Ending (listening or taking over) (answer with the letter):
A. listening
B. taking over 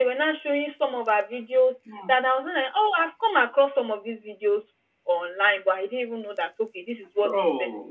B